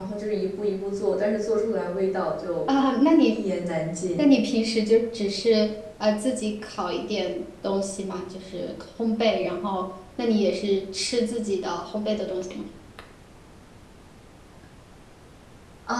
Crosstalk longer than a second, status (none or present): none